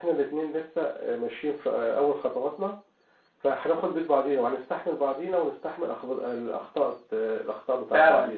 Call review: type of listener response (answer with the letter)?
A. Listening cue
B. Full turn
B